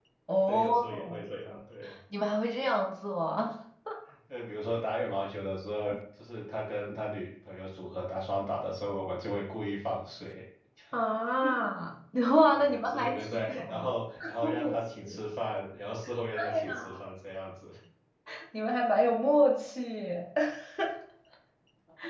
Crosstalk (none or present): present